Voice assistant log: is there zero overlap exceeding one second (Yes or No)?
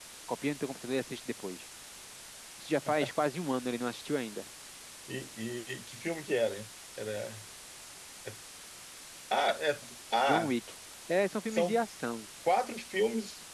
Yes